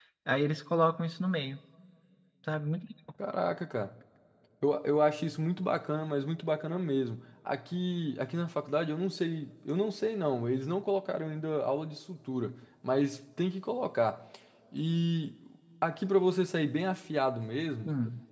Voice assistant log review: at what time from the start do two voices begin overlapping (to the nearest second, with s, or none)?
none